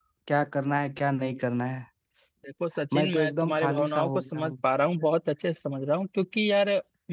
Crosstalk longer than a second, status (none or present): present